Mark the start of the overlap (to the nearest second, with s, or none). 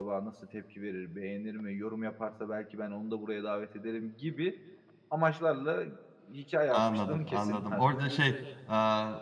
7 s